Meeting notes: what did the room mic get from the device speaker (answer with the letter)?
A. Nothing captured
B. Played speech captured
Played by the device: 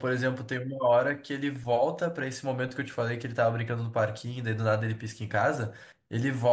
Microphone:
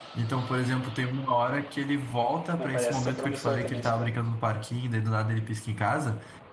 B